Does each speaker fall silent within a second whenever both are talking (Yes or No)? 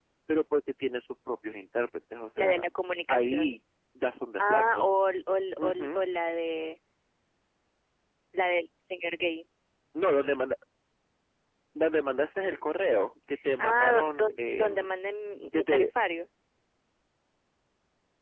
No